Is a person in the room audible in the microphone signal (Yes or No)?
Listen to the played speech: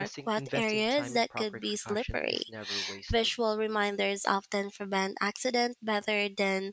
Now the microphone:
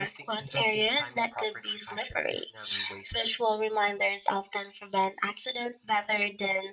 No